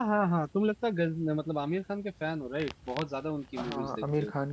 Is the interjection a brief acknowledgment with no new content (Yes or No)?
No